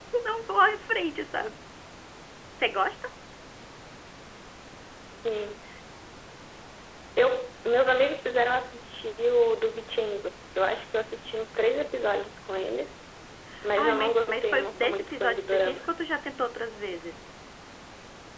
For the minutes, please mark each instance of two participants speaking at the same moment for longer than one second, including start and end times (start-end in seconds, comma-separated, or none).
13.8-15.9